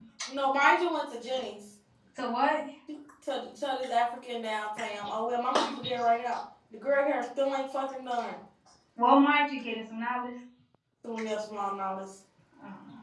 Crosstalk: none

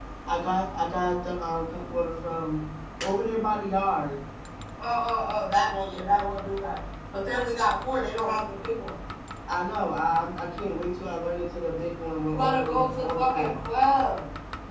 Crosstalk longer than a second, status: present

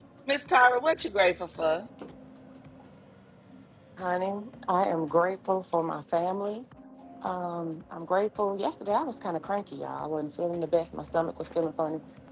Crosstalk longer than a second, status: none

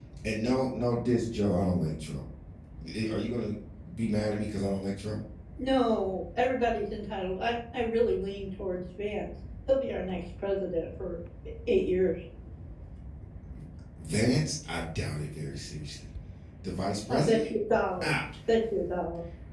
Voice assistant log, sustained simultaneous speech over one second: none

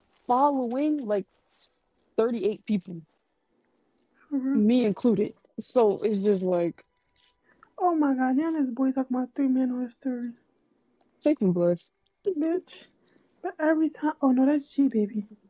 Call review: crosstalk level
none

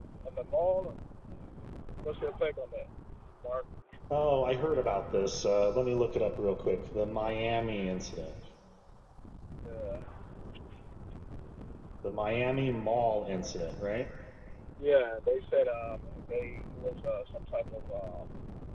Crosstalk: none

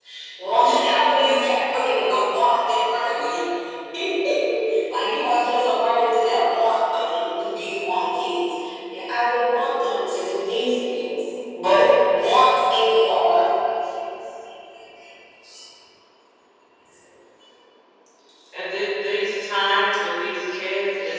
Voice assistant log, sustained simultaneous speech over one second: none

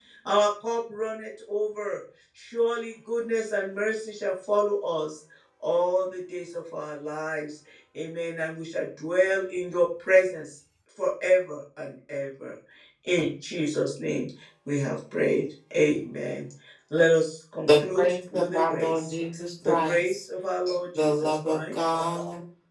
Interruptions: present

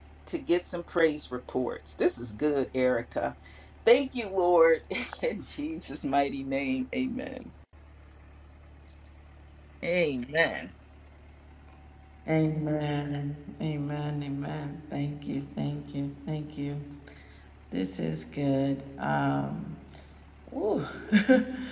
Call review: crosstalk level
none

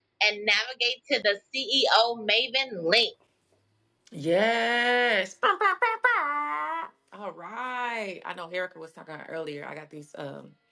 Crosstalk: none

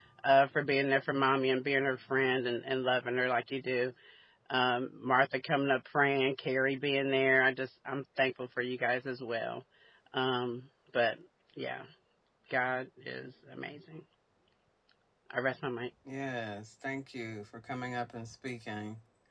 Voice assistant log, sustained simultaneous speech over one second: none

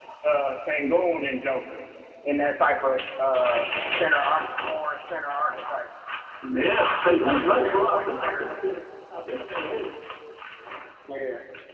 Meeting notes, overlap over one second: present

